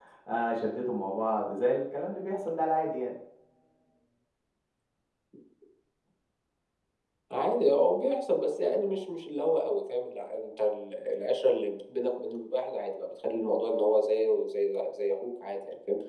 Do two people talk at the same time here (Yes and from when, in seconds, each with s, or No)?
No